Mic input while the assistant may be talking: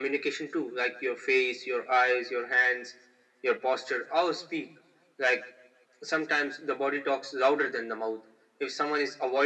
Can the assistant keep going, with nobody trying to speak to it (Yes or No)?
Yes